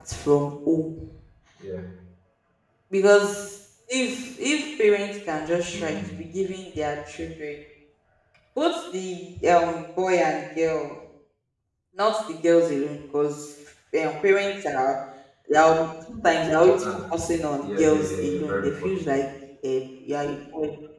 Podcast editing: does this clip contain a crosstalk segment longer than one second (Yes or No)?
Yes